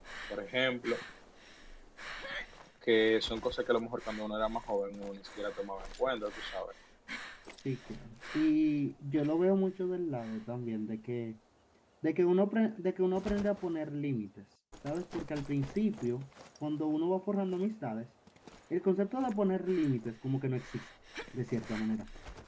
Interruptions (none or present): none